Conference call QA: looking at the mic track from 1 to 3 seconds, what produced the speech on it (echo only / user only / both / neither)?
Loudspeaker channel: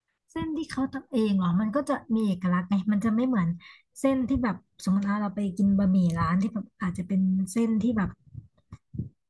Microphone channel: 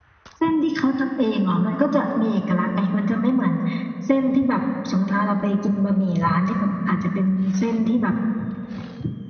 echo only